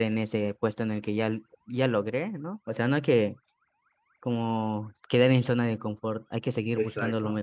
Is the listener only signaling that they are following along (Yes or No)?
No